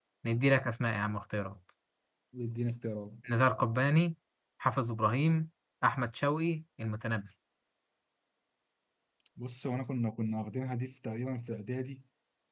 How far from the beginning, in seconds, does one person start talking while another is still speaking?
none

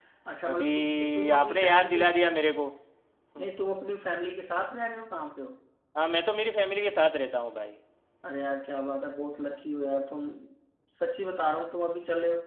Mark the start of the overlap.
1 s

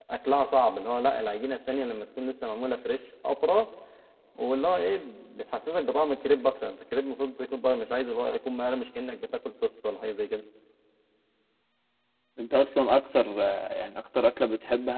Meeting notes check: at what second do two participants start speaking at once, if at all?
none

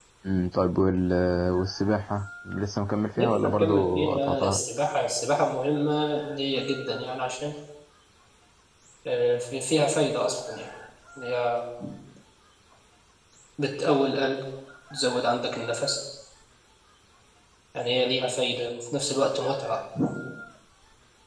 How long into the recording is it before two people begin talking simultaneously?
3 s

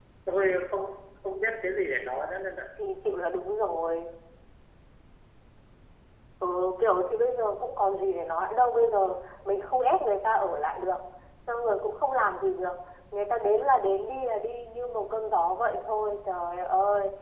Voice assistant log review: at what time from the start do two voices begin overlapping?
none

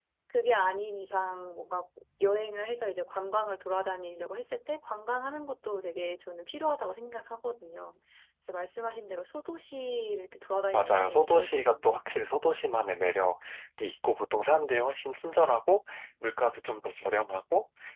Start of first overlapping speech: 11 s

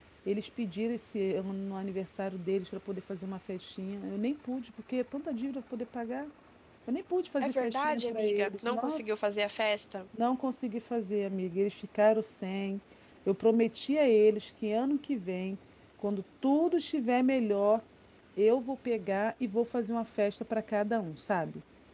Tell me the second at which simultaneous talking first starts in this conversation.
7 s

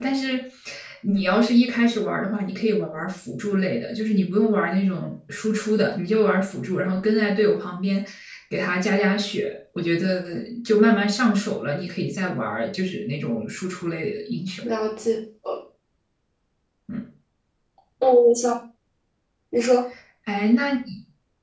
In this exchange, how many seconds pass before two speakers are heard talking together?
none

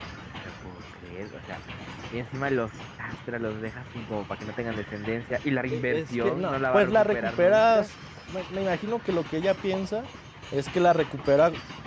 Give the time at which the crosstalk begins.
6 s

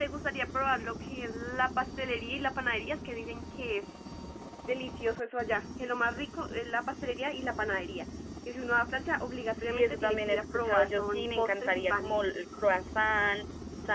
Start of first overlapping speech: 10 s

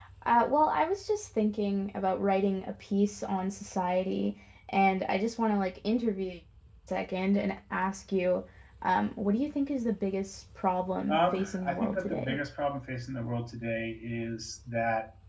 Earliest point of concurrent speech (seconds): 11 s

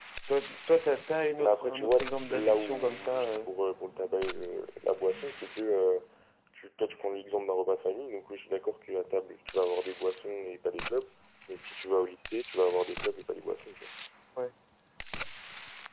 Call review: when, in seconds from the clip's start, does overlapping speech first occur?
1 s

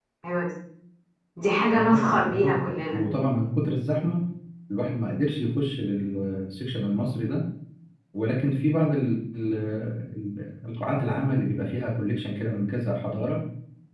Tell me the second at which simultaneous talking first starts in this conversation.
2 s

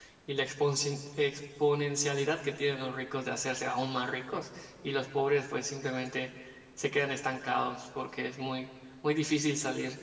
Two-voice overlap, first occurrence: none

